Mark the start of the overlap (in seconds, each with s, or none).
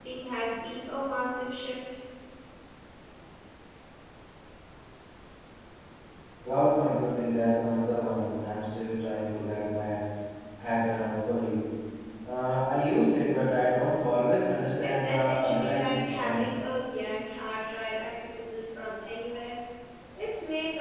14.8 s